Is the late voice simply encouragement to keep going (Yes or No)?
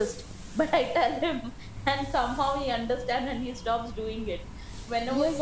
No